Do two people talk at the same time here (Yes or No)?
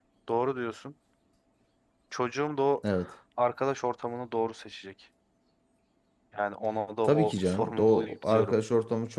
Yes